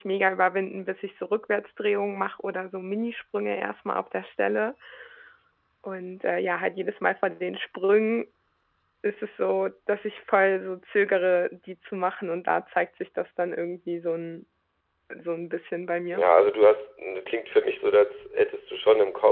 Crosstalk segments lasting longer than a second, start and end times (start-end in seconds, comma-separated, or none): none